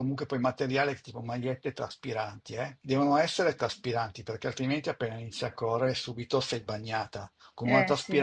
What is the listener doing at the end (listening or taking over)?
listening